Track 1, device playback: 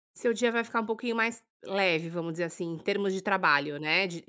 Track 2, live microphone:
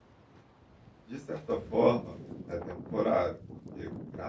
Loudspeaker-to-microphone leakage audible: No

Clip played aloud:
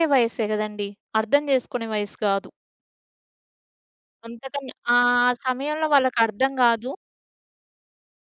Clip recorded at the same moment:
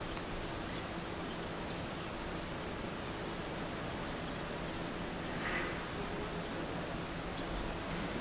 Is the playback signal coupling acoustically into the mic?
No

